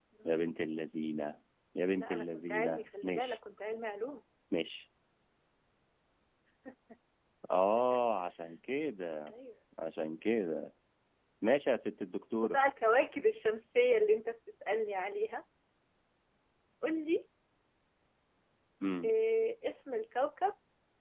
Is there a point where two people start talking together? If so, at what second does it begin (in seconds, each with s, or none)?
2.0 s